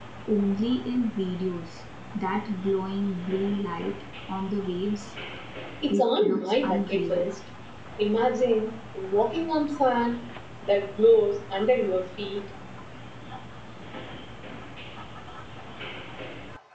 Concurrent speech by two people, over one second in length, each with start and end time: 5.9-7.3

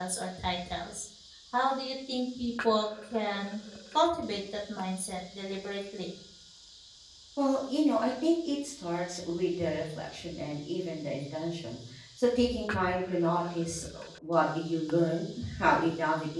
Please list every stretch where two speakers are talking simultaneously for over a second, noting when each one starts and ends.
none

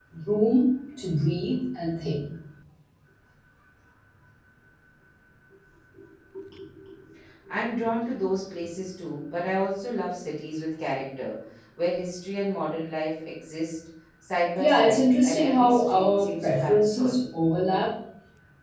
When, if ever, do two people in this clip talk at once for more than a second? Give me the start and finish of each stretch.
14.6-17.2

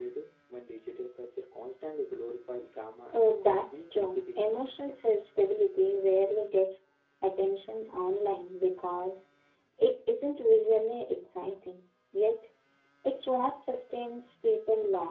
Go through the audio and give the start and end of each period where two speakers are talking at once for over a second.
3.1-4.4

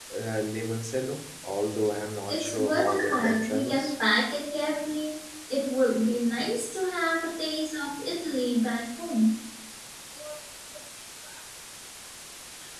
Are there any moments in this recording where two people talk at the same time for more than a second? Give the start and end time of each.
2.3-3.9

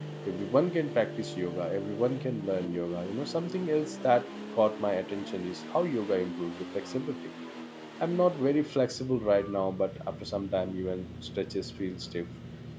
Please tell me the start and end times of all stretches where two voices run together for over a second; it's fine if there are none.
none

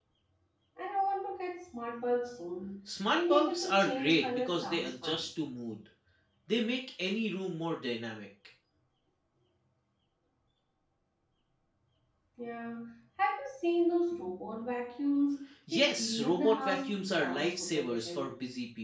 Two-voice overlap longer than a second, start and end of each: 3.1-5.2, 15.7-18.3

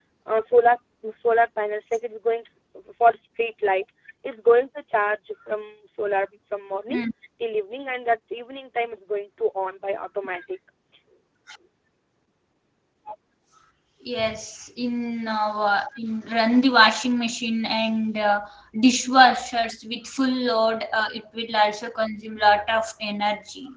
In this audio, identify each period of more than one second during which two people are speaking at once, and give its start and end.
none

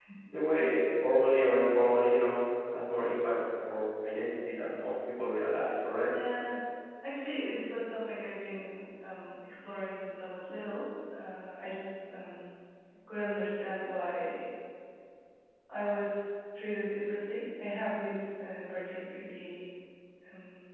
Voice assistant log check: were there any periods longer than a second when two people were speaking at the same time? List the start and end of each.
none

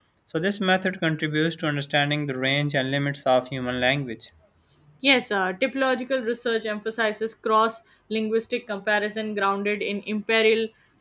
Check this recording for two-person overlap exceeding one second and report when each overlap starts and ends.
none

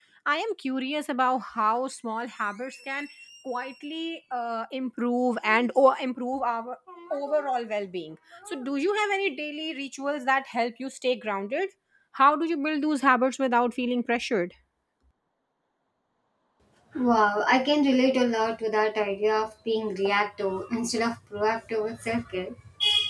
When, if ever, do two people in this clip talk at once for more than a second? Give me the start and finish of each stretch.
none

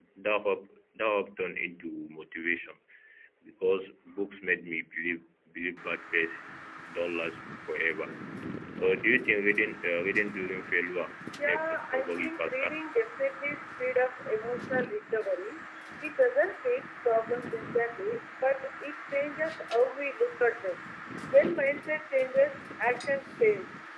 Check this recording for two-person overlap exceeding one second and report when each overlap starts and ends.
11.4-12.7

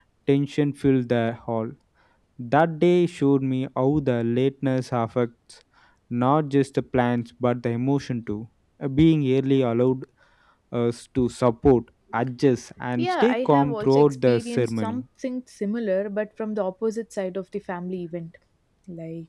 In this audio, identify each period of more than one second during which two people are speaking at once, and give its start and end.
13.0-15.0

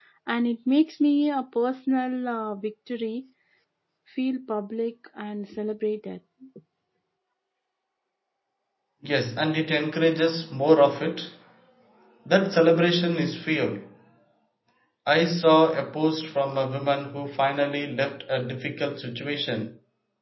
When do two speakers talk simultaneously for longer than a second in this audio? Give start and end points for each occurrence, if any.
none

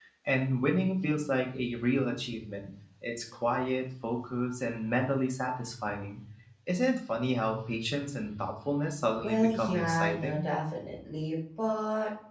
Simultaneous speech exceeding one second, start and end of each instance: 9.2-10.5

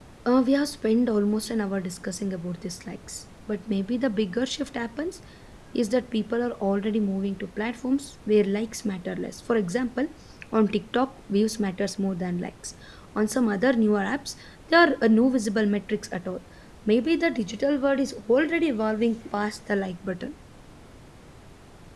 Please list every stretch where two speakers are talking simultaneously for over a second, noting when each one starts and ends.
none

